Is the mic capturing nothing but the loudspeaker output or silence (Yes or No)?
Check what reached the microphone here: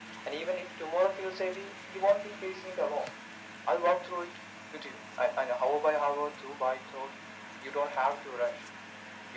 Yes